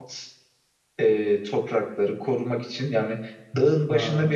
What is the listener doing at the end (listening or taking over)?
listening